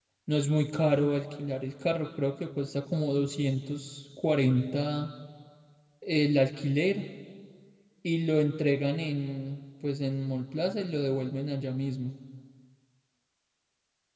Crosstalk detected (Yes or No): No